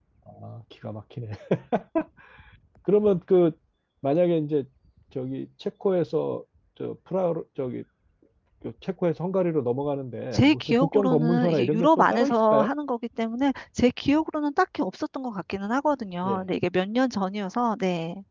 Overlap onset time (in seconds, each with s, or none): 10.3 s